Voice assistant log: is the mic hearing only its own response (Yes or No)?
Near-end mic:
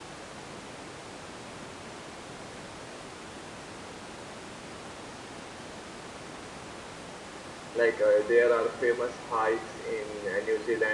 No